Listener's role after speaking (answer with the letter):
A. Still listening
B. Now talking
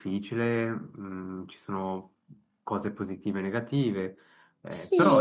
B